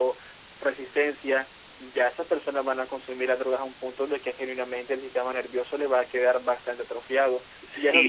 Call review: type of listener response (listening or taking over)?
taking over